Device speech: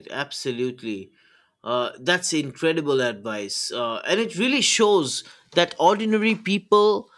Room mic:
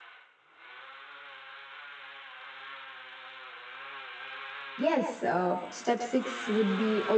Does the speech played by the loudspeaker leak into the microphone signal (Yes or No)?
No